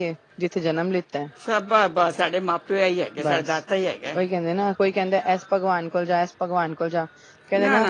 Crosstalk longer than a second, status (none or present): none